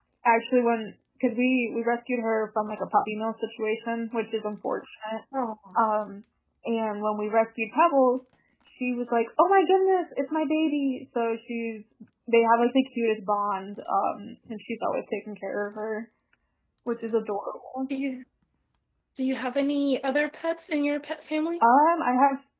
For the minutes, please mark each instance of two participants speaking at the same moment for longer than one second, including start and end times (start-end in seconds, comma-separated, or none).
none